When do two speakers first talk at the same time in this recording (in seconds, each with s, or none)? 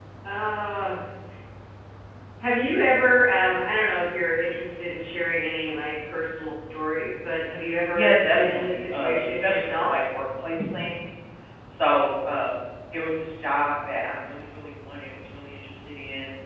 7.9 s